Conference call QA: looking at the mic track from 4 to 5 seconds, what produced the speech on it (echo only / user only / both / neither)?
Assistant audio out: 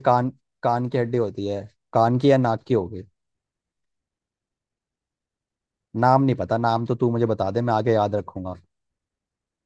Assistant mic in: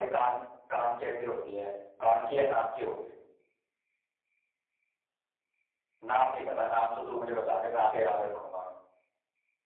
neither